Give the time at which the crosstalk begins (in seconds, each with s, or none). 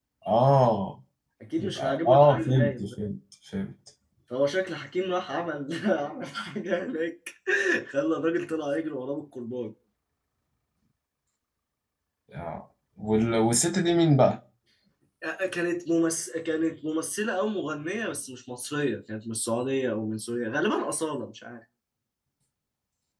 1.6 s